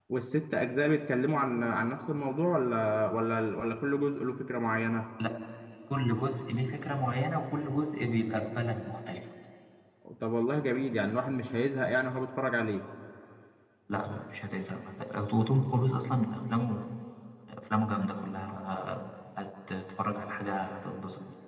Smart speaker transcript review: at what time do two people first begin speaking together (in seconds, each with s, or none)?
none